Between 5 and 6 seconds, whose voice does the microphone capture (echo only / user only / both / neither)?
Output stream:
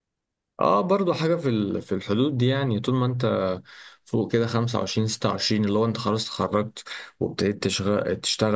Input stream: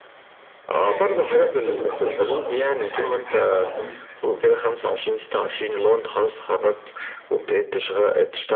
echo only